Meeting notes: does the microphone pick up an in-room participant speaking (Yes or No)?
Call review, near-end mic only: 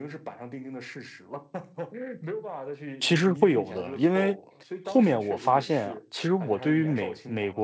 Yes